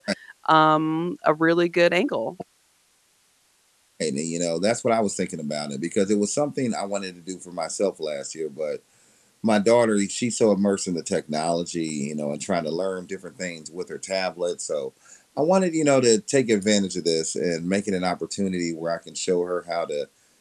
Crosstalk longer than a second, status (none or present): none